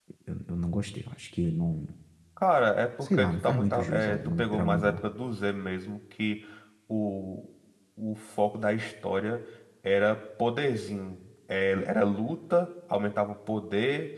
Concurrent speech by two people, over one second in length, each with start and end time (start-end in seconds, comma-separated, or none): 3.0-5.0